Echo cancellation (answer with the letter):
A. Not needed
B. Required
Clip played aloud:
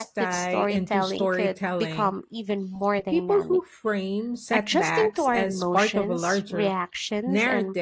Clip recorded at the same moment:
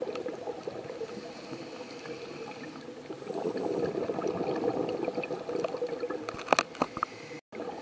A